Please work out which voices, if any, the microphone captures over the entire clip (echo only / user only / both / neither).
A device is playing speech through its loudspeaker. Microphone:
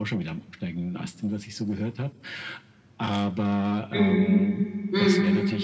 both